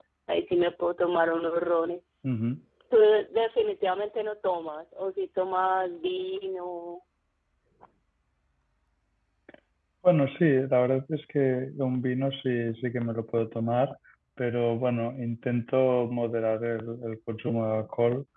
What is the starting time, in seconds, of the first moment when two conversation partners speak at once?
none

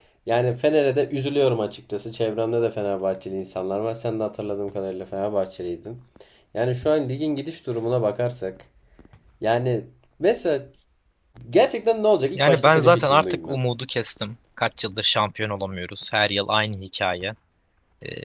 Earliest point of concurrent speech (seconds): 12.3 s

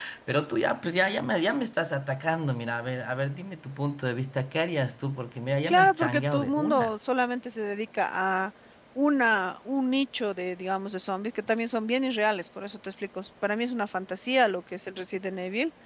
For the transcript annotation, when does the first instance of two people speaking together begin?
5.7 s

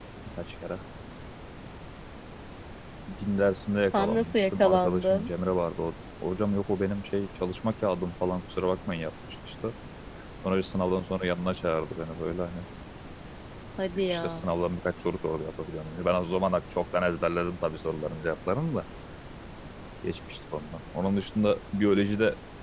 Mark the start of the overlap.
3.9 s

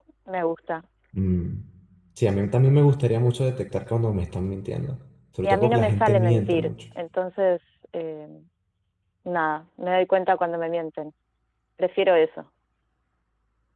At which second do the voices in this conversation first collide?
5.4 s

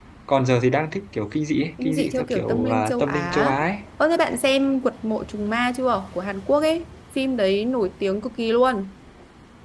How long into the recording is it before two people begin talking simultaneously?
1.8 s

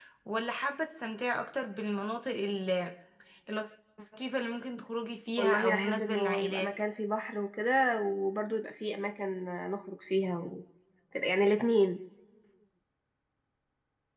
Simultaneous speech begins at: 5.4 s

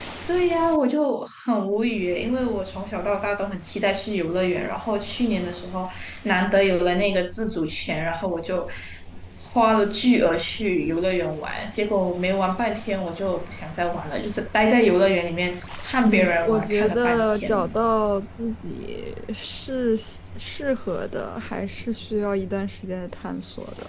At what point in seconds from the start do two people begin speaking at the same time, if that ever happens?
16.0 s

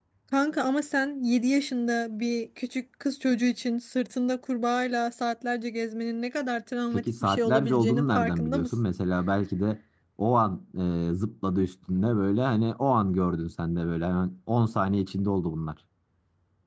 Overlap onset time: 6.9 s

